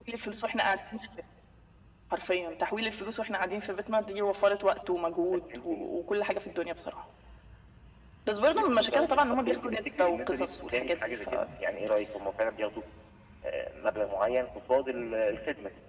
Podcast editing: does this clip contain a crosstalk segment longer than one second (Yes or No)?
Yes